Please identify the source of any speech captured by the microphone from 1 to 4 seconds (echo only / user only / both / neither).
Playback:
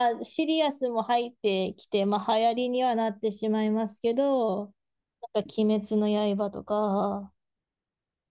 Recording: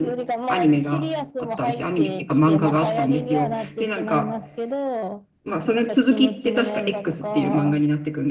both